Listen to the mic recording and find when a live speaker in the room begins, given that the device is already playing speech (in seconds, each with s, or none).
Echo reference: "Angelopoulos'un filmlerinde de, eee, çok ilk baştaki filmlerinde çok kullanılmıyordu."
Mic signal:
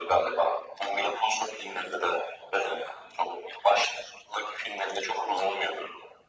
none